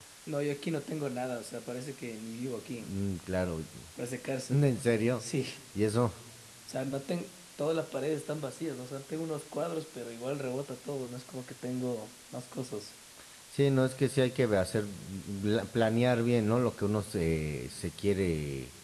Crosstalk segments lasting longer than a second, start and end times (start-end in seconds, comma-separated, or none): none